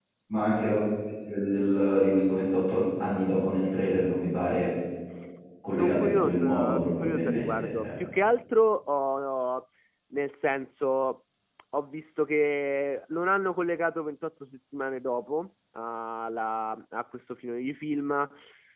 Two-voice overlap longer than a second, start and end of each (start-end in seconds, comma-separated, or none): 5.7-7.9